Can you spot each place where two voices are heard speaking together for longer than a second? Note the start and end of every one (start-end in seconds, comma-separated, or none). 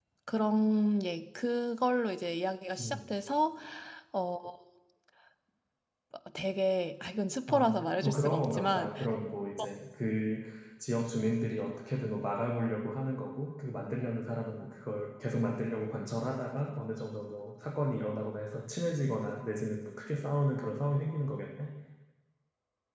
7.5-8.9